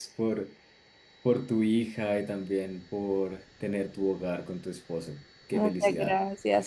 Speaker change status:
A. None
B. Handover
B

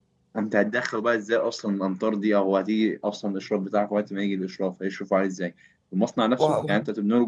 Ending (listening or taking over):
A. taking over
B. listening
B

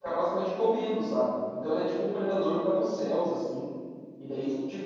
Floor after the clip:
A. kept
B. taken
A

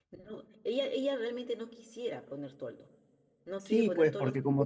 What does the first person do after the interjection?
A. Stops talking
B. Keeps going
A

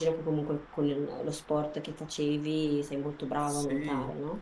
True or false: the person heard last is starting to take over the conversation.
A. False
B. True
B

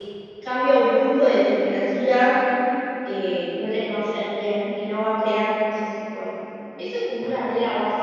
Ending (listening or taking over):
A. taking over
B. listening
B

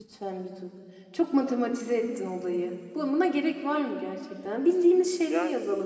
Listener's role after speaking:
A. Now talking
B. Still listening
B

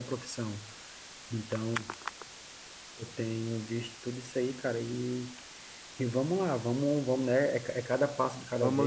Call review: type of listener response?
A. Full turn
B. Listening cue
A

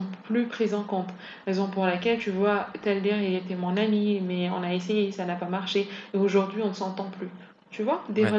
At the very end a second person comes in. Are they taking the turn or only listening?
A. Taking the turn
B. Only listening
B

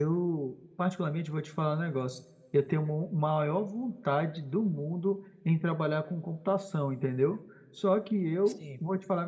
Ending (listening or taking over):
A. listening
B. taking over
A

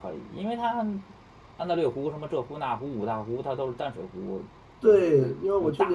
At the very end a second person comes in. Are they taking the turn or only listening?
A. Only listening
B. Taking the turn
B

